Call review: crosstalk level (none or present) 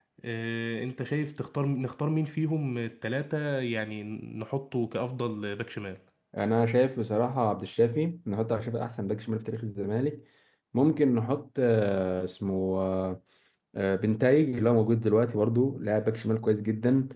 none